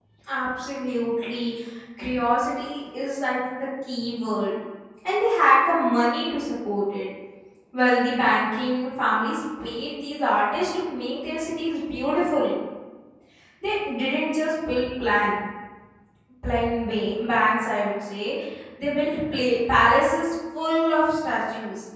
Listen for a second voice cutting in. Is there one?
No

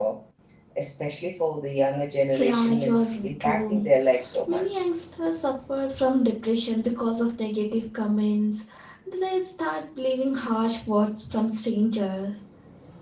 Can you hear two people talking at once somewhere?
Yes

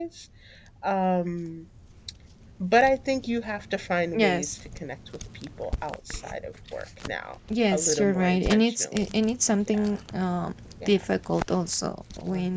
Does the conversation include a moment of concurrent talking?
Yes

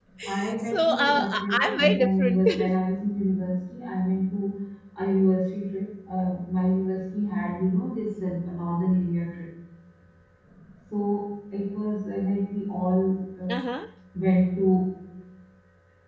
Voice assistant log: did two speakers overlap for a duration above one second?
Yes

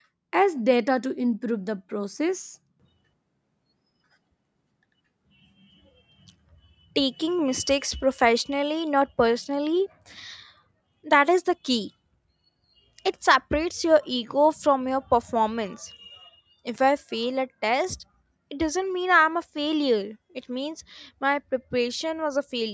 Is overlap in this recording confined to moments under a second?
Yes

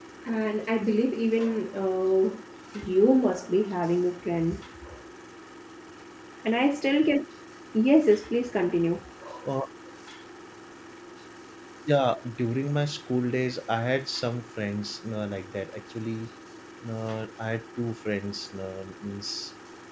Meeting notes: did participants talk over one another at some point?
No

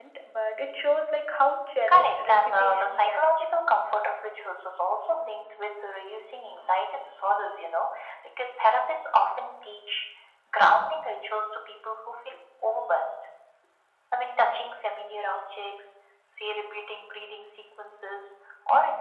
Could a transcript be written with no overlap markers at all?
No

